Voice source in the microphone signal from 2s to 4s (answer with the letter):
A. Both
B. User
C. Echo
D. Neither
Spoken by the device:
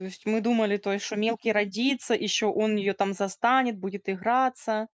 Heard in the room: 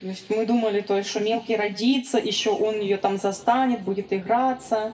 C